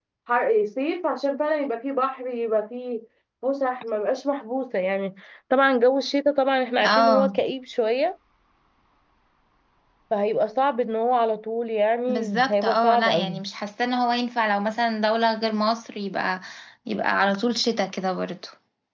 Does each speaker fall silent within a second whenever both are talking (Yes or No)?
No